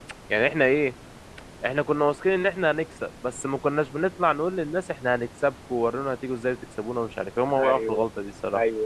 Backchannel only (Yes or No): No